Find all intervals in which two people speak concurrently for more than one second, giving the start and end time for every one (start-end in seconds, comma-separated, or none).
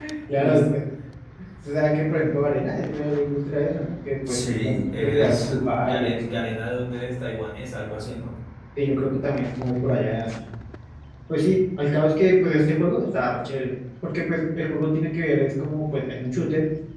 4.3-6.3